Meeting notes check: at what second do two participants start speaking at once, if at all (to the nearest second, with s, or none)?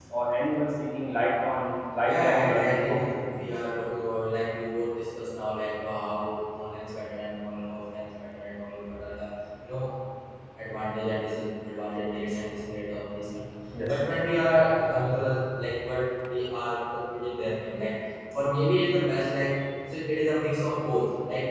2 s